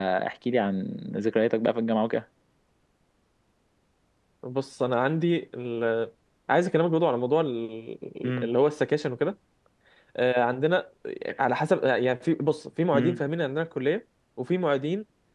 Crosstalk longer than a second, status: none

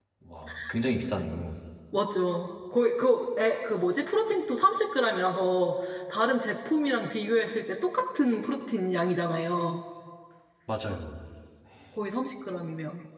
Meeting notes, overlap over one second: none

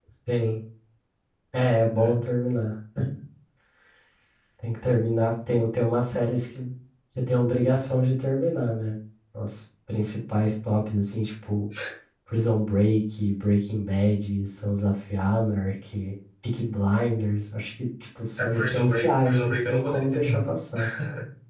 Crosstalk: present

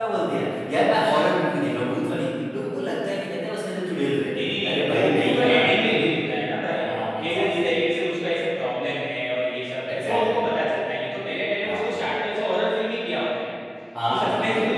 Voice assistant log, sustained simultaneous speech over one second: present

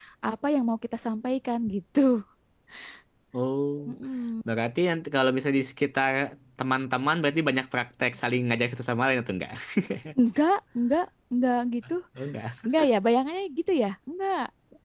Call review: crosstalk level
none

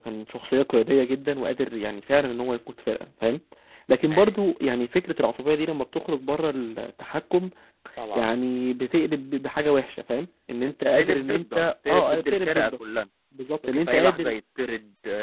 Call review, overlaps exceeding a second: present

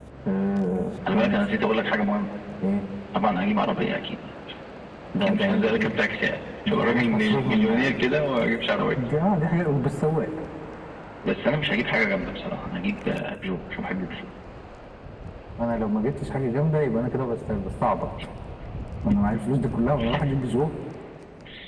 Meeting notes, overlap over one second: present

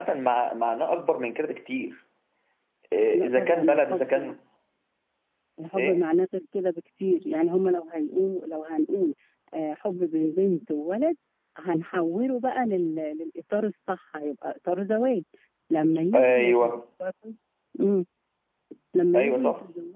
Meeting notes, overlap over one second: present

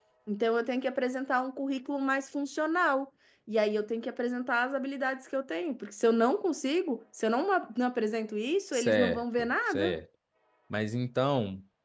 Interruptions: present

